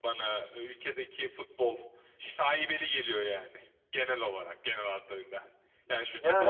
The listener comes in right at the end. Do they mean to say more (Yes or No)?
No